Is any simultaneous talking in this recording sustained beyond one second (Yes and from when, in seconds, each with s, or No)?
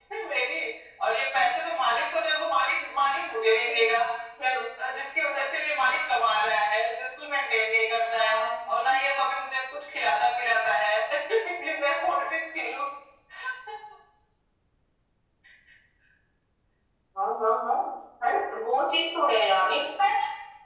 No